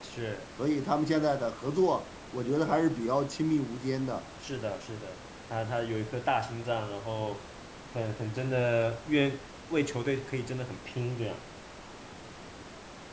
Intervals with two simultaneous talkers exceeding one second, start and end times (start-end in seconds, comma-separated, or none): none